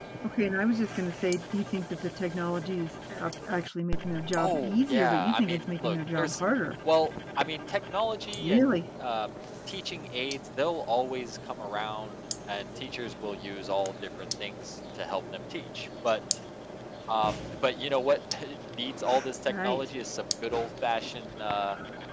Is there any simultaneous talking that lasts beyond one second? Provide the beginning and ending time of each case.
4.4-6.4

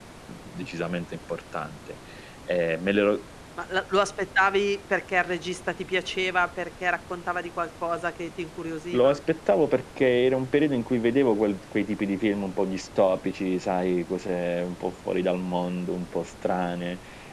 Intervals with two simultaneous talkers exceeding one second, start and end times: none

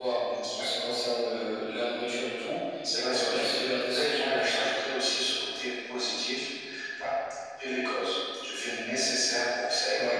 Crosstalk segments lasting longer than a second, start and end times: 2.9-4.8

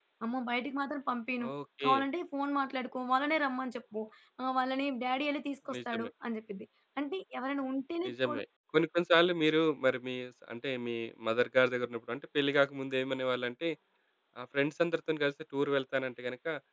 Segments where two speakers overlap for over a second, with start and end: none

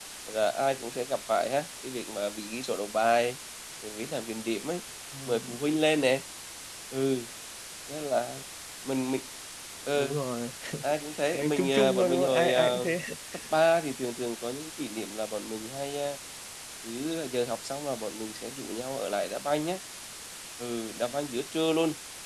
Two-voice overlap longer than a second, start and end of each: 11.3-12.8

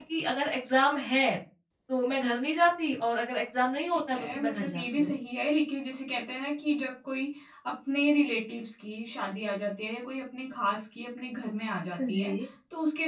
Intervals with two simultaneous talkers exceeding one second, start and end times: 3.9-5.1

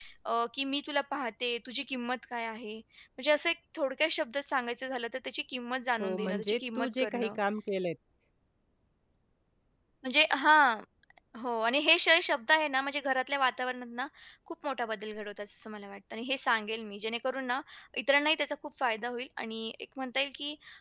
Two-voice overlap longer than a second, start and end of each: 6.0-7.4

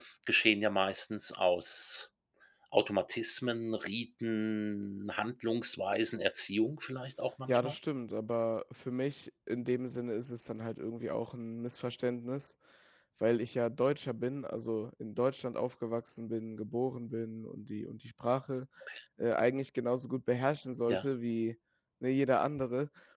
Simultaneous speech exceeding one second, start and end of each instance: none

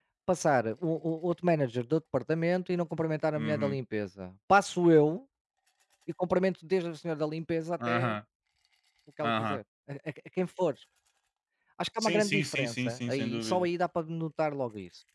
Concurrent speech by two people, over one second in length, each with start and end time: 12.0-13.7

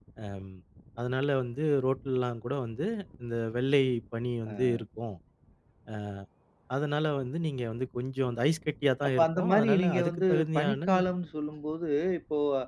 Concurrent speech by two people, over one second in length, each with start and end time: 9.1-10.9

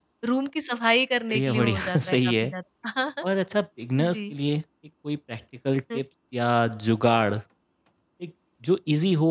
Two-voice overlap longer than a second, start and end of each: 1.3-2.5

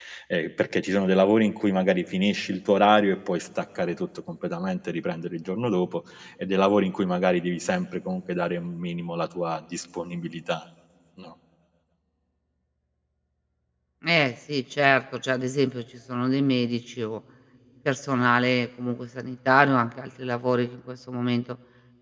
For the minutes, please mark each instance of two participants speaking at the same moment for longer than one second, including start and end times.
none

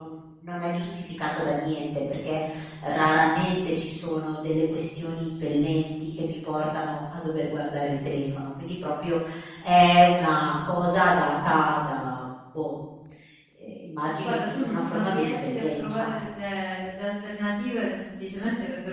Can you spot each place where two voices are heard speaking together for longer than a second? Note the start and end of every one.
14.2-16.1

